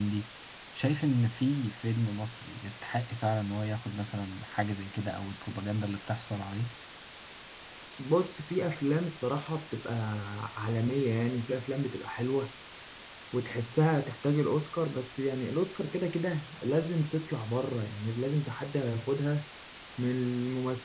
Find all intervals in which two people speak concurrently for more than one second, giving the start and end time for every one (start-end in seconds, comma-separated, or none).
none